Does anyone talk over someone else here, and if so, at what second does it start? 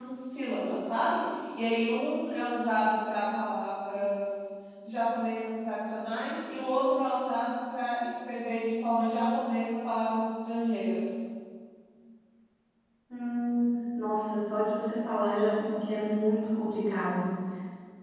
none

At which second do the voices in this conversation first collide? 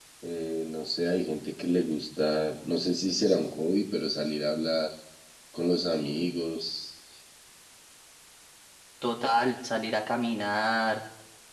none

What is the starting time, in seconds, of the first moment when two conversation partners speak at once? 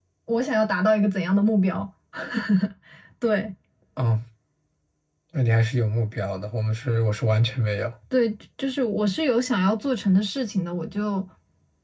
none

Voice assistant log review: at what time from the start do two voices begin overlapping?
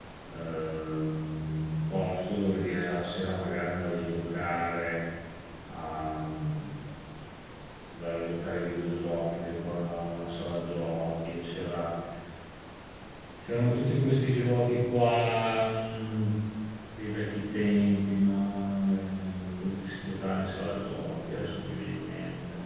none

